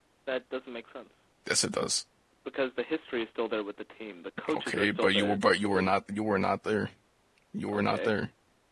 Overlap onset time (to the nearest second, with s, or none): 5 s